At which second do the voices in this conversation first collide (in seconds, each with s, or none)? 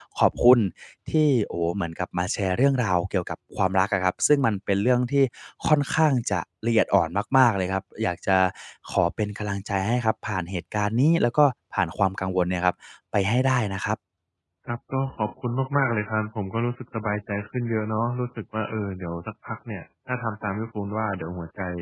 none